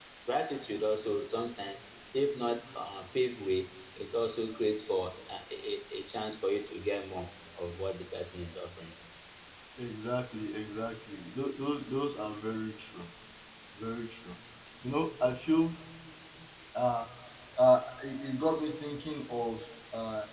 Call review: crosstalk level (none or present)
none